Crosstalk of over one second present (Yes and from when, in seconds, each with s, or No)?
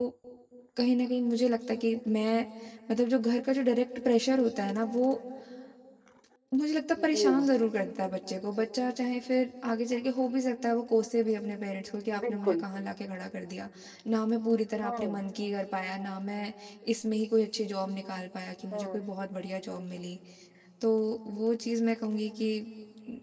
No